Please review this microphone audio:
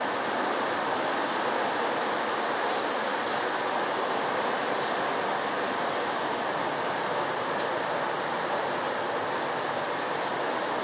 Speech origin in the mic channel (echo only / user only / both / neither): neither